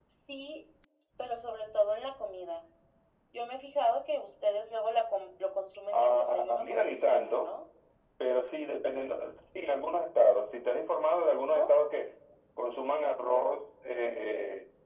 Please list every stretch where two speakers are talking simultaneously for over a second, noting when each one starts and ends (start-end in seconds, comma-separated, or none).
5.9-7.5